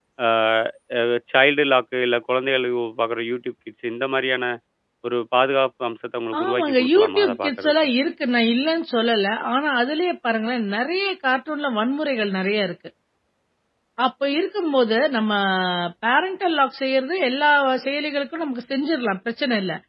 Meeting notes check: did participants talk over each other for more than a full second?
Yes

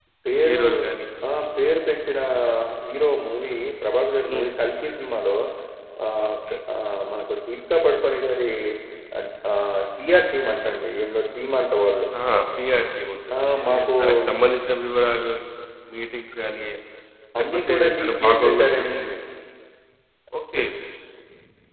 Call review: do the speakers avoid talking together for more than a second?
No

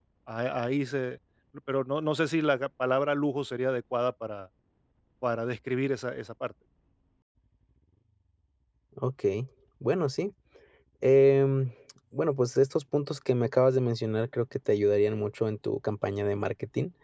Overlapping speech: No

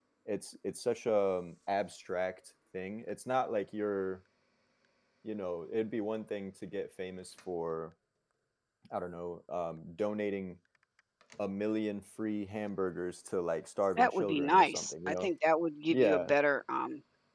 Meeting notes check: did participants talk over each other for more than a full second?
Yes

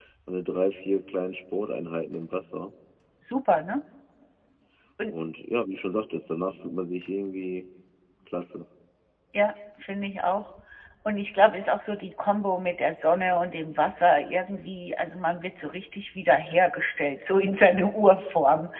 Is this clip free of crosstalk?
Yes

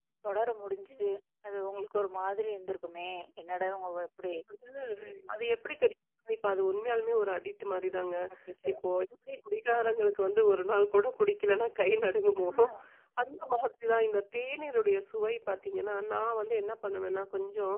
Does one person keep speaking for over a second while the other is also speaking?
No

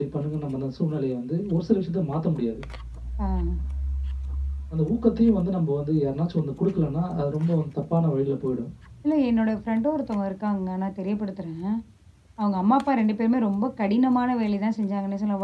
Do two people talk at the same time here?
No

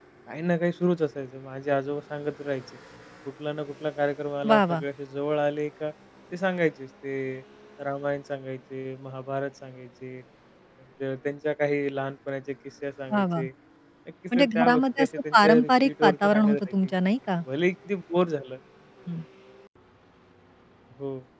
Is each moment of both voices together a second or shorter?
No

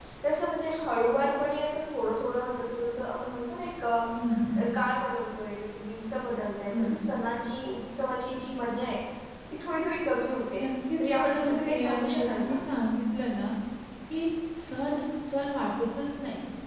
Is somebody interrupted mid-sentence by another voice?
Yes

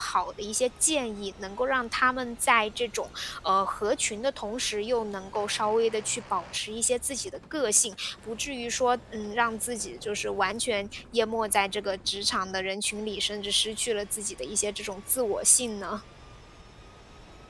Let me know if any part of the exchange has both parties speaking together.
No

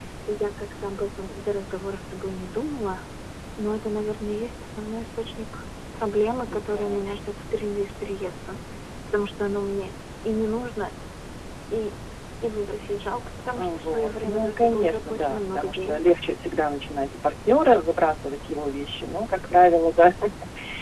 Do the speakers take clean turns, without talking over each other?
No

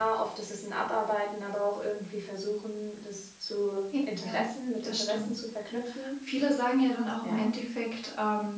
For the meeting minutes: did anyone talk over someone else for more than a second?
No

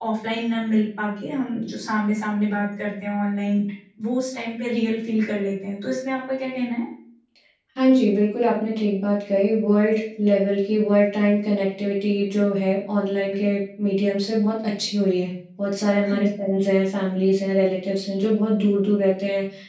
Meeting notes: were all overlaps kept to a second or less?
Yes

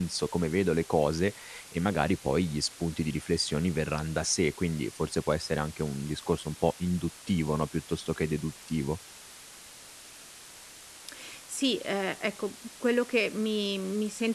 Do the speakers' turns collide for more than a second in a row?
No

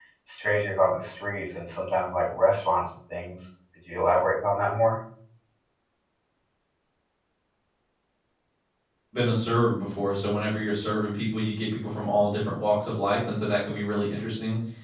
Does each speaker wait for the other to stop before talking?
Yes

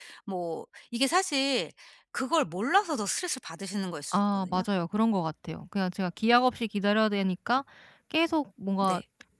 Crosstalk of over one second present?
No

